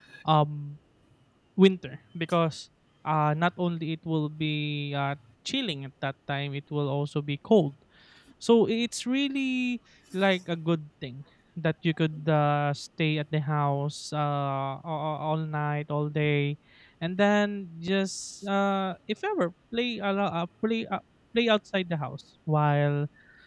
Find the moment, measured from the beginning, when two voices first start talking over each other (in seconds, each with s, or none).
none